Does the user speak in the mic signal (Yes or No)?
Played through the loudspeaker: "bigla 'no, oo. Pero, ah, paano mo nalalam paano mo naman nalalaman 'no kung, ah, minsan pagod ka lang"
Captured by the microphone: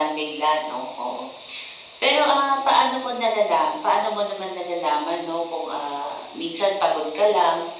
No